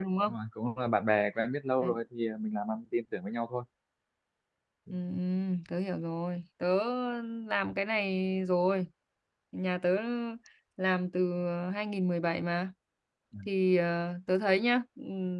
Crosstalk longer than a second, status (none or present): none